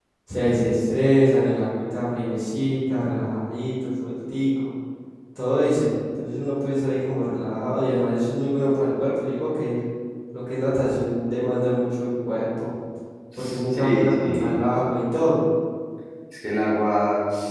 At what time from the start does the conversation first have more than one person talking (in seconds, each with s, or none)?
13.4 s